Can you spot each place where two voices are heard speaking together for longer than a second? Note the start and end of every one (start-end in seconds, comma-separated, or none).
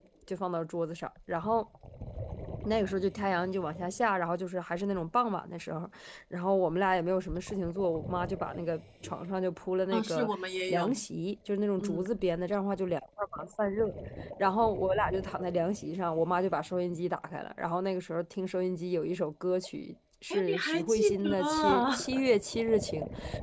20.3-22.1